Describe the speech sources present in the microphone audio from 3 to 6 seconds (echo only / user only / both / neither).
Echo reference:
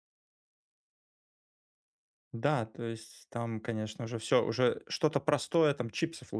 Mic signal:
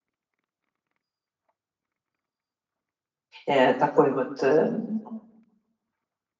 user only